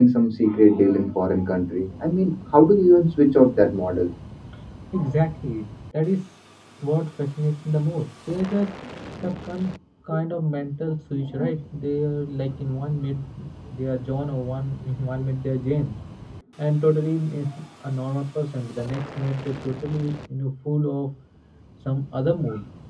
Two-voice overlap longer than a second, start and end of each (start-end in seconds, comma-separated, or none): none